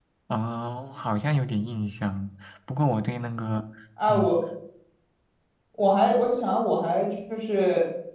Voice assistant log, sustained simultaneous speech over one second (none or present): none